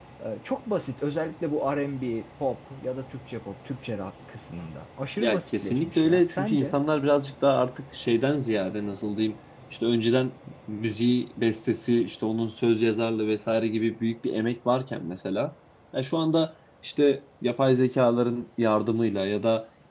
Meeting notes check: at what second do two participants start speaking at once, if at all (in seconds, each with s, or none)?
5.2 s